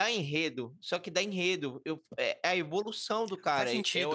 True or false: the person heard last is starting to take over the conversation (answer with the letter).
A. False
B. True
B